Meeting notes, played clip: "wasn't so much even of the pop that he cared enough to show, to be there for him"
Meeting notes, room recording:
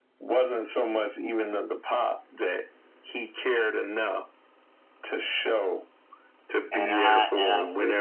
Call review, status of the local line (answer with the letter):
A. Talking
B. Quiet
A